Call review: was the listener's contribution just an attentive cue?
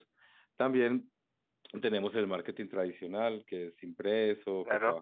Yes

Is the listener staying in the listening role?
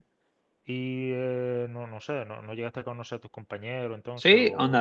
No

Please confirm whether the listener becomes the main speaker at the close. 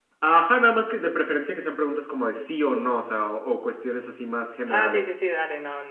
Yes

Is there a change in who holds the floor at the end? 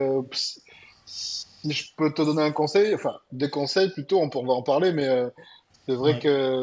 No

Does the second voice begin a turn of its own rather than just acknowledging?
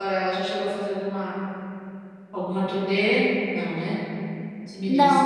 Yes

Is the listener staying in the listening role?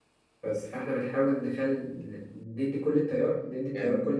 Yes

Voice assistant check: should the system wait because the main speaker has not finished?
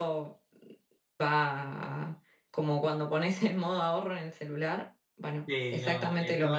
No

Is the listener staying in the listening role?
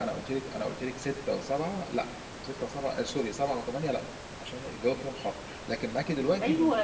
No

